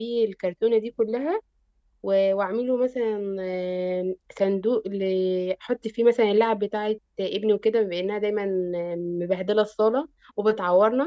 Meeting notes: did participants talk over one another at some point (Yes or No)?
No